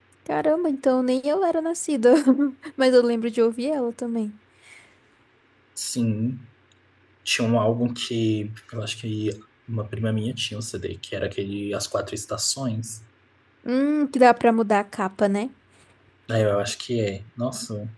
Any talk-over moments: No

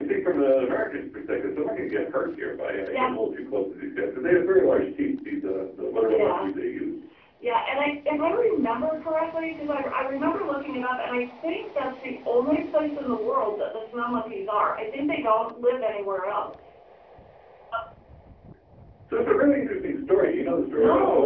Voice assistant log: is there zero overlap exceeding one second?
Yes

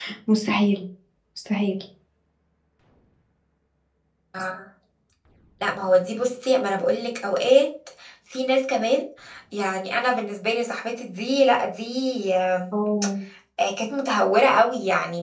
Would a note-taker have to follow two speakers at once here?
No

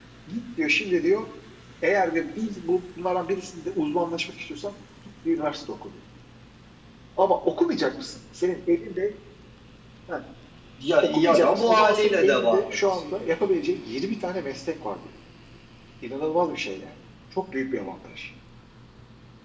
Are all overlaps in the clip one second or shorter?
No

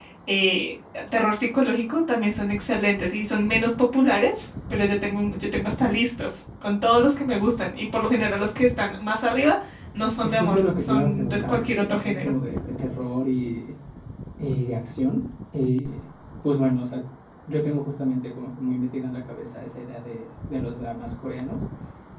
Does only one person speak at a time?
No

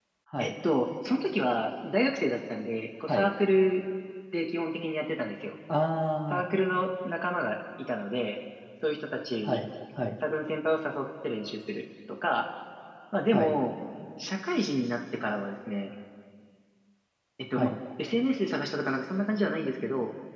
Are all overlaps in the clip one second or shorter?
Yes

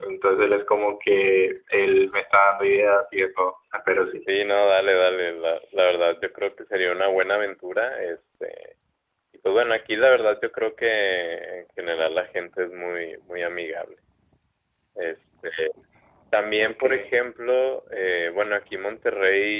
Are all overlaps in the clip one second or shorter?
Yes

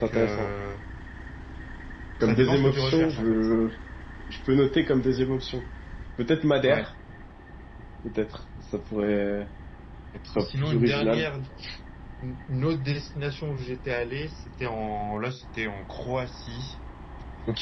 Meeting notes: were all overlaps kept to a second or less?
No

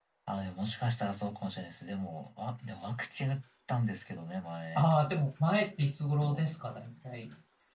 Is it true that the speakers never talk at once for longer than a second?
Yes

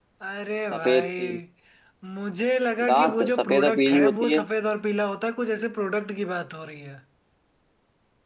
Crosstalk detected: Yes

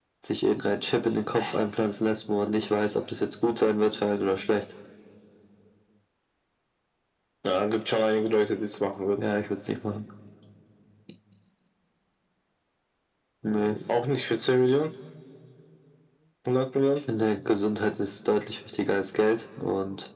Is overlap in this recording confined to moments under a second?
Yes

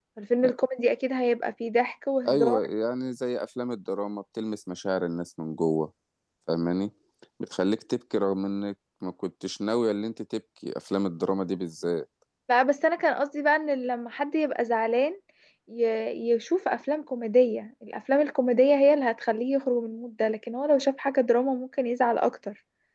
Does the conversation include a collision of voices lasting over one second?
No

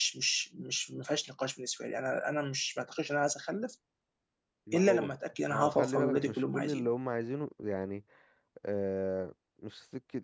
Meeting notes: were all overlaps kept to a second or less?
No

